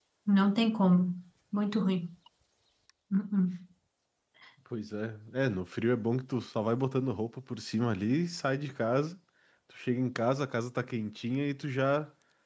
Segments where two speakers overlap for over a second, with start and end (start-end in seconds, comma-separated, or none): none